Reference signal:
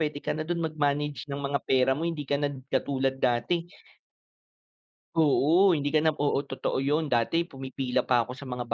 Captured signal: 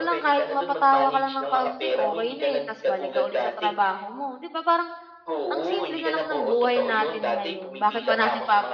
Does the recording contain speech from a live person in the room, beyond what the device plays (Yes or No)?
Yes